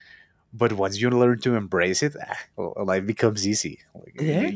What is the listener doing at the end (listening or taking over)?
taking over